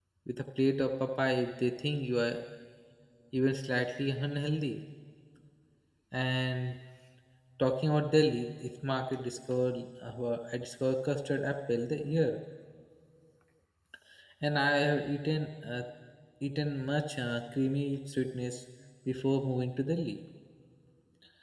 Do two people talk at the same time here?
No

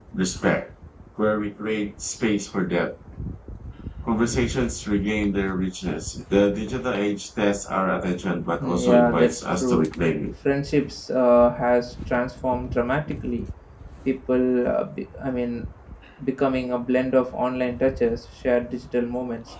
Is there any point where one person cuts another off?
Yes, from 8.6 s

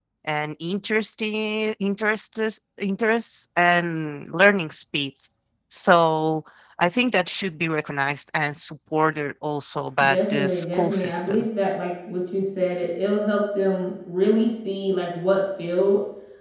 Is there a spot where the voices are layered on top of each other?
Yes, from 10.0 s

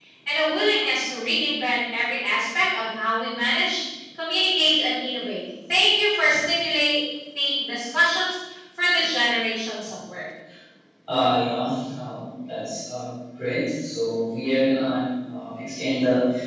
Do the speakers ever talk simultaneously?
No

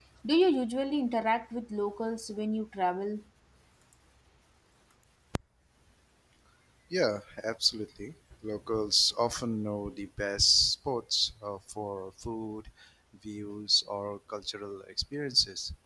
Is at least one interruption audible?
No

